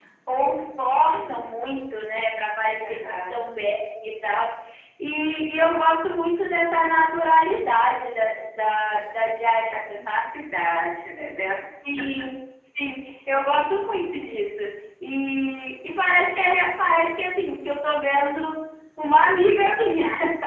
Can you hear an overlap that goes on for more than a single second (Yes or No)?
No